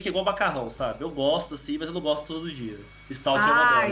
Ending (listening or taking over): taking over